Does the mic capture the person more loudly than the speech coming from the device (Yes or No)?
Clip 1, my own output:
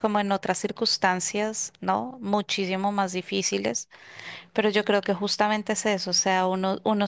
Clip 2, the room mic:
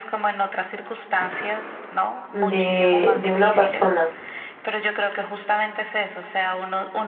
Yes